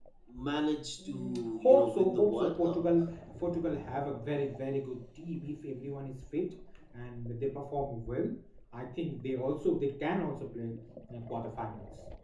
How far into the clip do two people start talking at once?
1 s

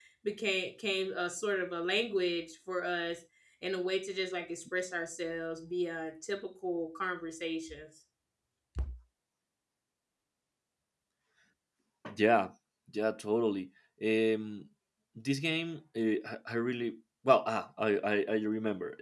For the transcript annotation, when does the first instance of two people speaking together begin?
none

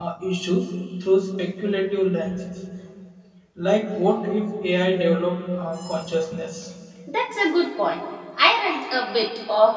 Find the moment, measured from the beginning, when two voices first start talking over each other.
none

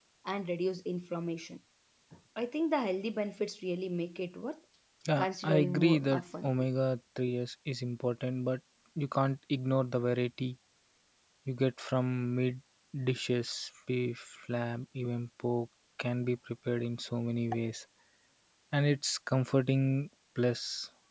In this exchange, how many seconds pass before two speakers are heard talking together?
5 s

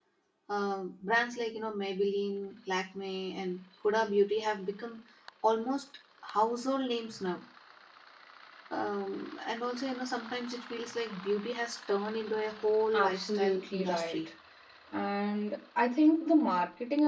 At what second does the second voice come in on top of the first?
13 s

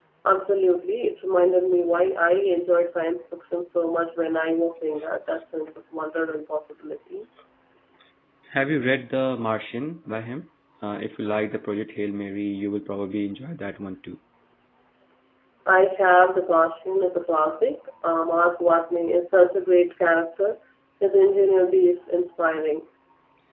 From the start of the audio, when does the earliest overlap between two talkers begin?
none

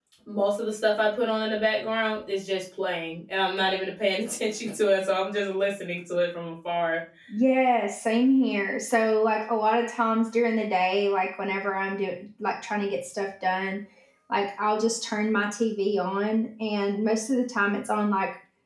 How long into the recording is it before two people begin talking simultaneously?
none

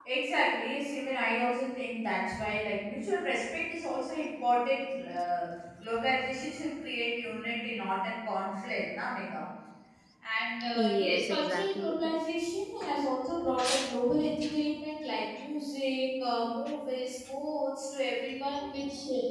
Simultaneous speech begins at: 11 s

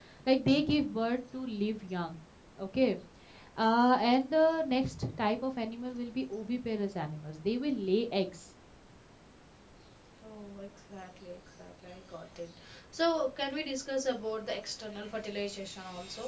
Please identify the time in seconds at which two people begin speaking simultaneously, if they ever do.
none

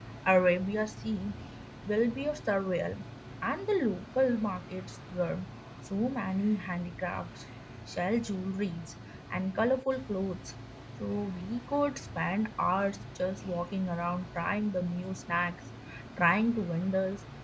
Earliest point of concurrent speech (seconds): none

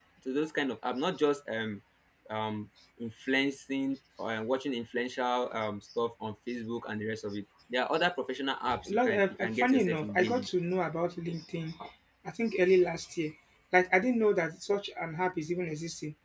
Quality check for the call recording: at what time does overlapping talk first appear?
9 s

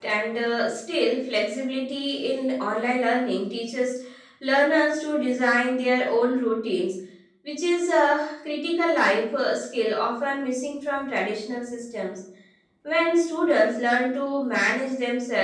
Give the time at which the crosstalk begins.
none

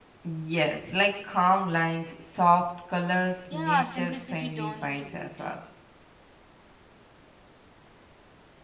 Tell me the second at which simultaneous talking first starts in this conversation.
4 s

